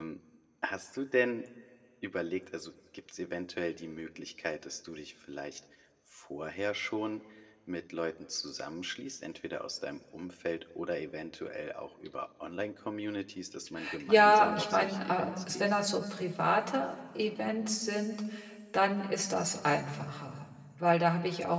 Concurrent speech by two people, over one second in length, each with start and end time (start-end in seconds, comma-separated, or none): 14.1-15.7